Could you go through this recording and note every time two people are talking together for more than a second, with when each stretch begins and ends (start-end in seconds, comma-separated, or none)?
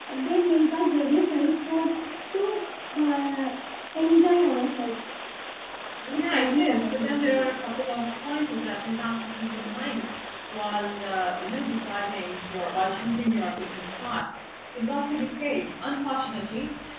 6.1-7.4